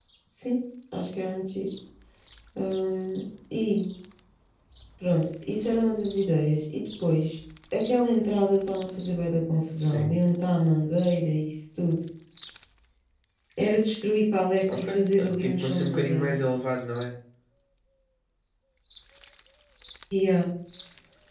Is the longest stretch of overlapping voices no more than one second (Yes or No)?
No